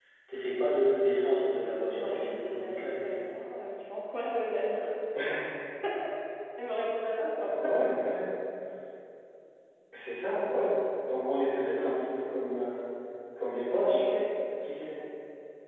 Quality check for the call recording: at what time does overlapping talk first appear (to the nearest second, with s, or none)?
2 s